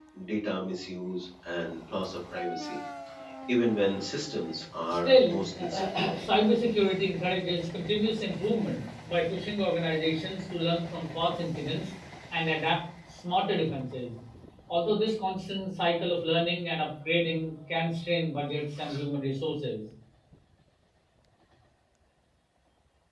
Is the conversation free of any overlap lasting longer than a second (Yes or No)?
No